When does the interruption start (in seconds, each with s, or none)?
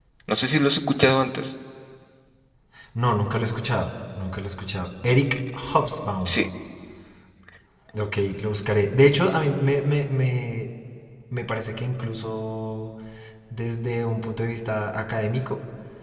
none